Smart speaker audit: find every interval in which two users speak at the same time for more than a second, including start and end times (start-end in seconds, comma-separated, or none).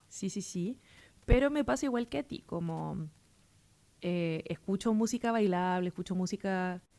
none